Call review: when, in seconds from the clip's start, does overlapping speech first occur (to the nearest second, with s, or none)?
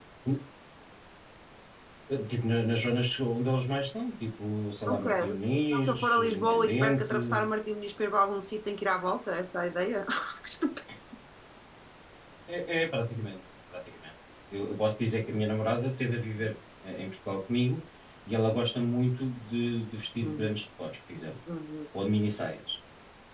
5 s